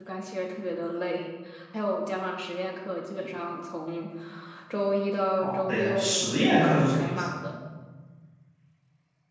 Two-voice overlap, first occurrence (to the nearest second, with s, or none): 5 s